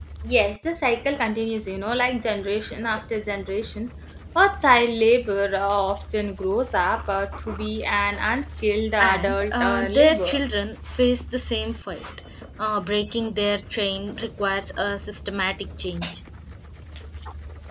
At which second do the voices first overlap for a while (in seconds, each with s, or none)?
9.0 s